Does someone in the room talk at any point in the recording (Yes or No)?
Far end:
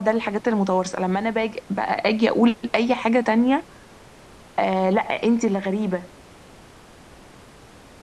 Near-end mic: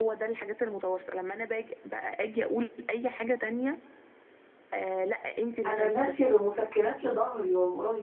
Yes